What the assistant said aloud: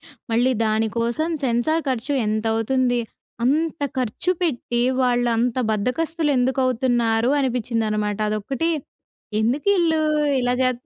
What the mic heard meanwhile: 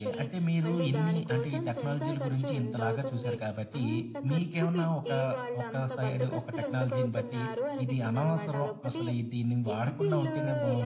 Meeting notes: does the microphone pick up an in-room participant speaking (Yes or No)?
Yes